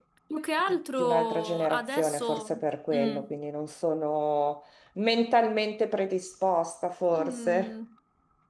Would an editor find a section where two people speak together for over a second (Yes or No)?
Yes